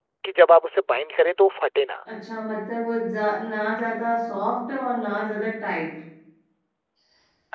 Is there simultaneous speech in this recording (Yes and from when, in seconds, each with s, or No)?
No